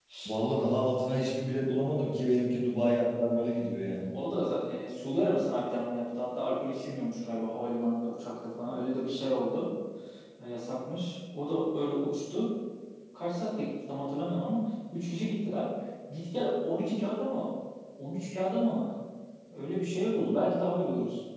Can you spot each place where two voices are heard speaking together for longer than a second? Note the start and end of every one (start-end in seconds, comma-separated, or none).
none